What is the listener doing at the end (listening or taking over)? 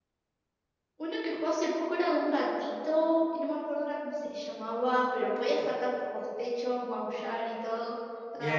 taking over